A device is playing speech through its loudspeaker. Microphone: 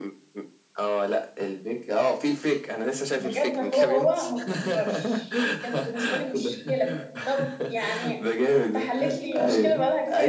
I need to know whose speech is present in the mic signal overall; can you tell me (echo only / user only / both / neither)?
both